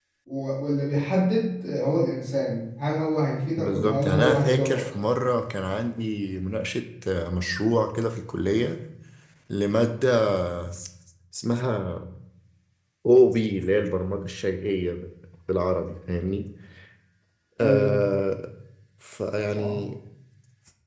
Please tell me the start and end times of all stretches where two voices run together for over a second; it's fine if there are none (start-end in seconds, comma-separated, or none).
3.6-4.8